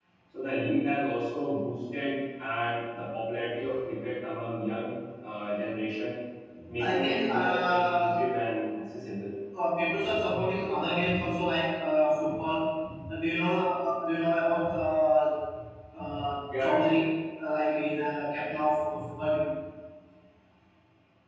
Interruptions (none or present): present